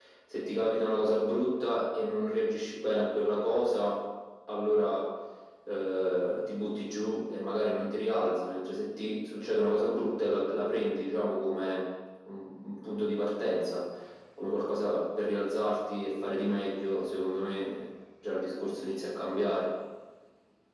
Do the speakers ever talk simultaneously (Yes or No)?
No